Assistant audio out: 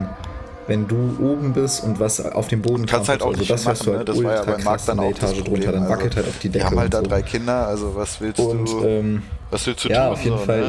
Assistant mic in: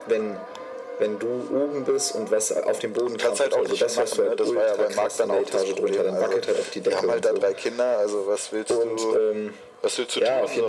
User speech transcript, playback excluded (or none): none